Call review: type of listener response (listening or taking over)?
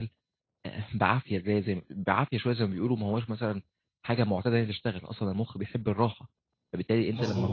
listening